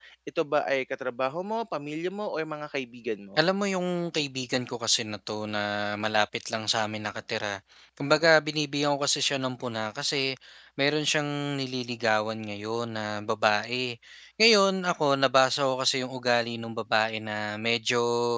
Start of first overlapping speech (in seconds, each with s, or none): none